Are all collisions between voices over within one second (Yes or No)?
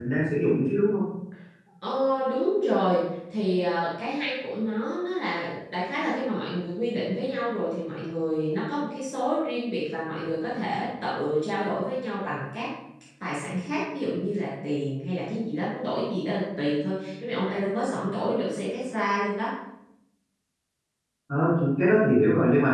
Yes